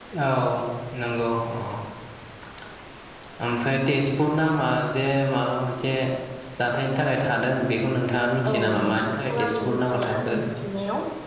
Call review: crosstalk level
present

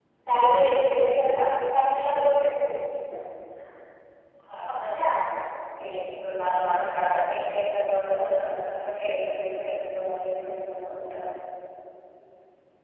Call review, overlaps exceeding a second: none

